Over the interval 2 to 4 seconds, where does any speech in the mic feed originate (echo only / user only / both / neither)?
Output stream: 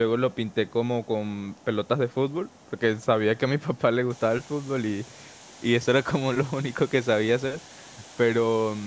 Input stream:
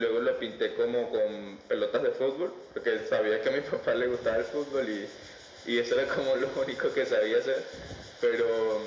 echo only